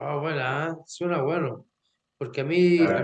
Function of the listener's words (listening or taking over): listening